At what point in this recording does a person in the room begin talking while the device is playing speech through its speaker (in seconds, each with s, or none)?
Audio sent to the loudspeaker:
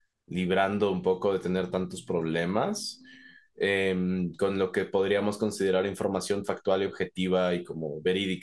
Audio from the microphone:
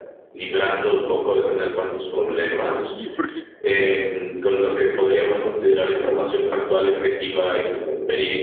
2.6 s